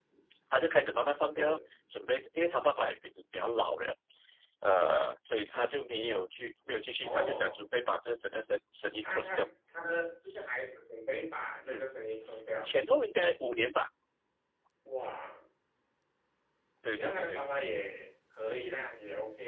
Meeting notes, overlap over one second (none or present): none